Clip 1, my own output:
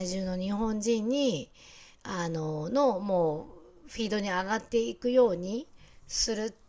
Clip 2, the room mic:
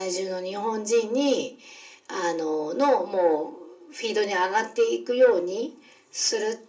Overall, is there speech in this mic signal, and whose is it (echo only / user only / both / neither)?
echo only